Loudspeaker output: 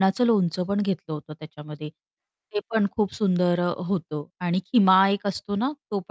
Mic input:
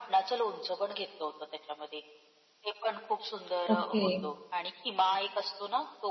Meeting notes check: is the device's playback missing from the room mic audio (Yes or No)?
No